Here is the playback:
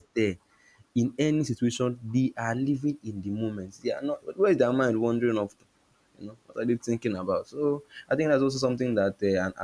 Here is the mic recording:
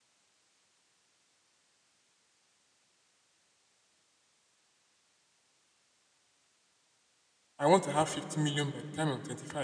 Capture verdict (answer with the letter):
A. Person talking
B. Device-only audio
A